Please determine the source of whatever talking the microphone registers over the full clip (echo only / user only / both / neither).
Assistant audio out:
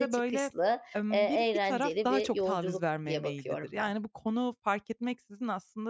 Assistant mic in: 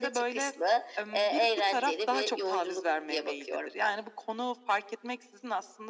echo only